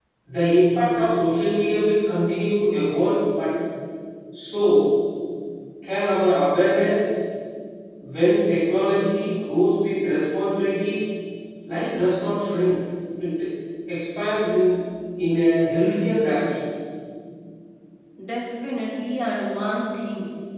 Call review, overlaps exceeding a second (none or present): none